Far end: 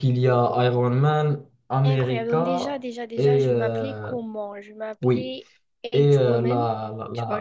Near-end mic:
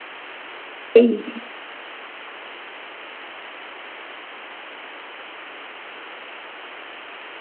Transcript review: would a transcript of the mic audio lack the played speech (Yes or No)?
Yes